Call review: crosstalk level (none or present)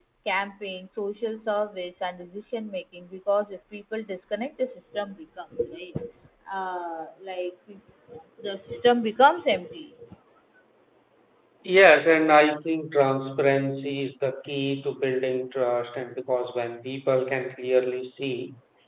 none